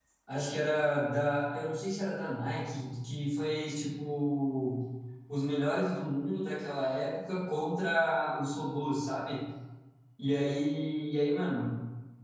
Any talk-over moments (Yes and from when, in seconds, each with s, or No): No